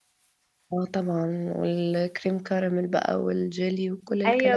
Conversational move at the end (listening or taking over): taking over